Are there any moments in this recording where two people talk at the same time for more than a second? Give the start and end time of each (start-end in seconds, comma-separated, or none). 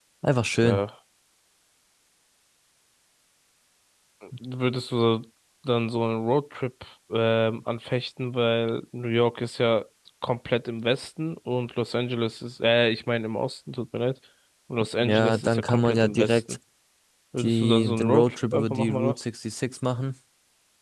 15.0-16.4, 17.4-19.2